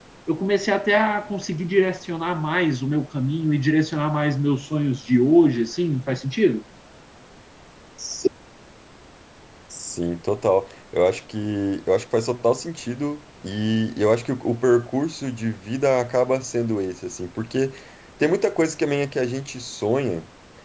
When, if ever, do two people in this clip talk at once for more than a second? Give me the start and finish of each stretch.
none

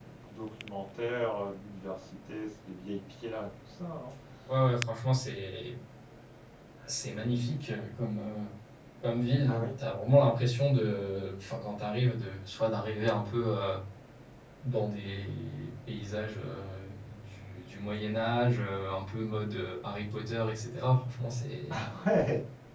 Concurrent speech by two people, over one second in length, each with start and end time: none

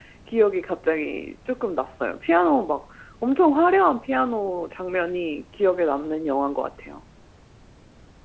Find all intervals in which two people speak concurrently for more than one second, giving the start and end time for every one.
none

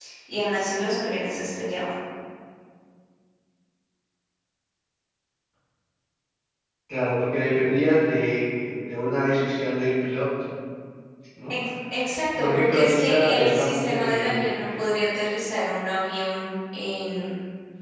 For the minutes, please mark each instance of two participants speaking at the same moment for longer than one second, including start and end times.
12.4-14.5

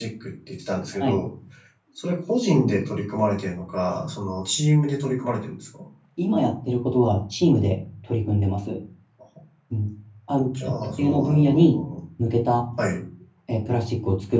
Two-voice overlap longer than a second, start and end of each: 10.5-11.8

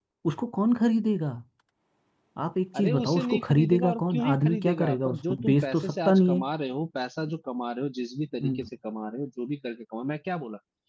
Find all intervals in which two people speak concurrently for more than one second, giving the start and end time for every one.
2.8-6.4

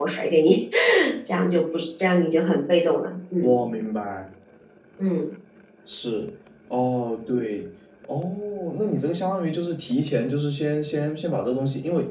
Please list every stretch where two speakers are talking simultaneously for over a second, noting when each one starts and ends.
none

